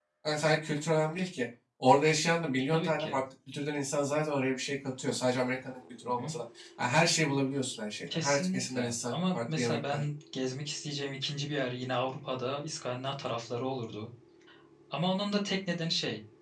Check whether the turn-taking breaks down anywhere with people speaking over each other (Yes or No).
Yes